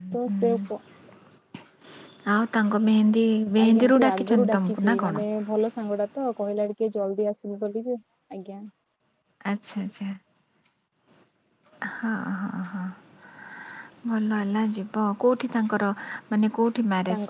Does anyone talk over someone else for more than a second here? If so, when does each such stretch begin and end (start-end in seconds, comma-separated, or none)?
3.7-5.2